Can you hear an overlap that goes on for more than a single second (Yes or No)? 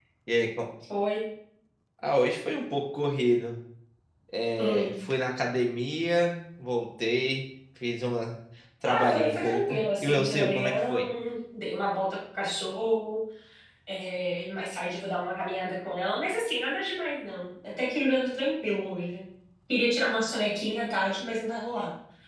Yes